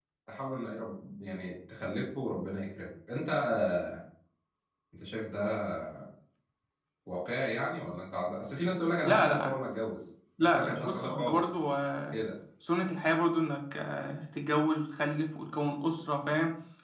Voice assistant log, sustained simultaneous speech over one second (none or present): present